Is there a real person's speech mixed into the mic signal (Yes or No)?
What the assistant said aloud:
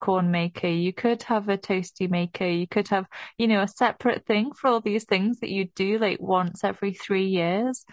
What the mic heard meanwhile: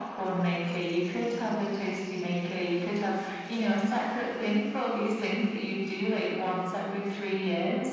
No